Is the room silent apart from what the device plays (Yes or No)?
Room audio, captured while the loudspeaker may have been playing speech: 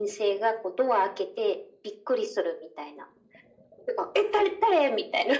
Yes